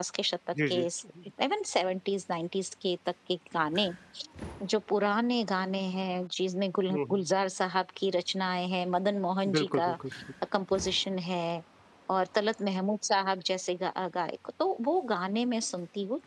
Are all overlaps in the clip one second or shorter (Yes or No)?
Yes